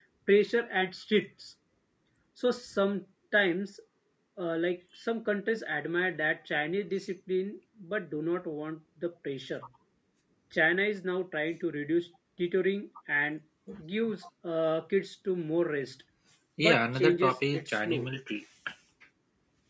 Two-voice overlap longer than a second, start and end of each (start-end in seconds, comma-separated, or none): 16.6-18.1